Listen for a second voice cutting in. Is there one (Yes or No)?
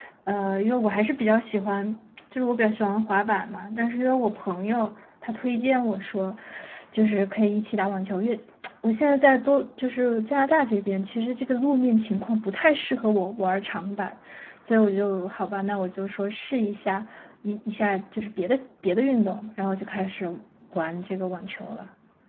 No